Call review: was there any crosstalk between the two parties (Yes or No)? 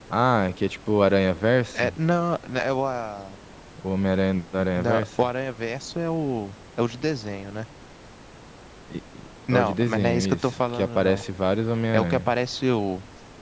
Yes